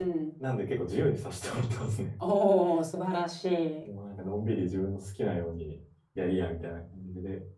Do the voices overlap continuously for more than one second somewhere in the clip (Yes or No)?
No